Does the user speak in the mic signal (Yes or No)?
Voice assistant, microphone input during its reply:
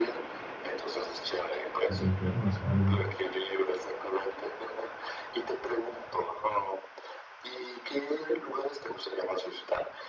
Yes